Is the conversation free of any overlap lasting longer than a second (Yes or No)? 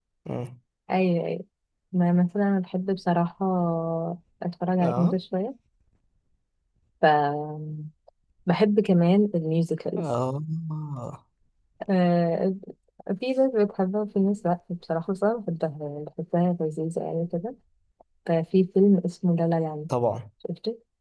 Yes